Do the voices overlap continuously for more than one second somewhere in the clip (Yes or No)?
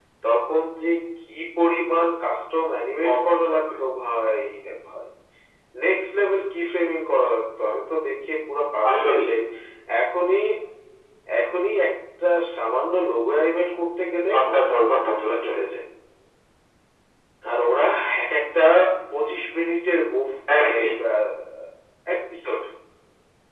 Yes